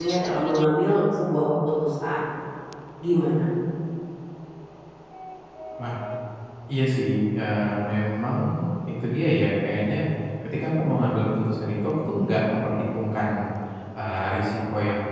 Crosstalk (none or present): none